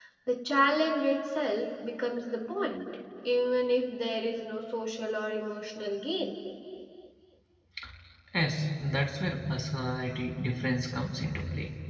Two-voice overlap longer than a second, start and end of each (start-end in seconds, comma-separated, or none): none